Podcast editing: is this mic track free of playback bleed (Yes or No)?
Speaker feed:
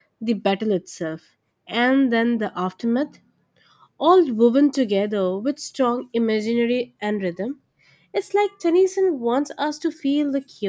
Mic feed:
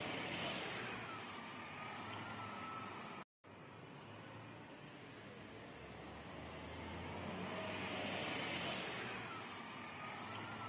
Yes